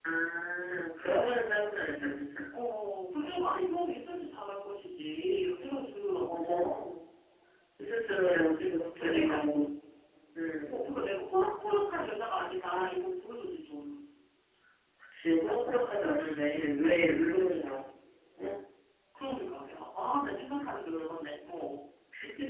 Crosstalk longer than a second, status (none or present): none